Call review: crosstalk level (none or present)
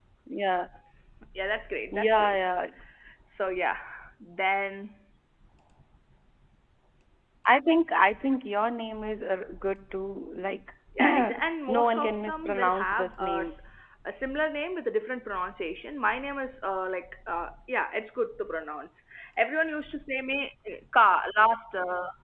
present